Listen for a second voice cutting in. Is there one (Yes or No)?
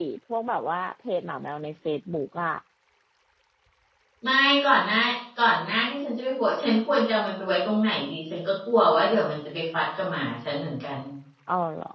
No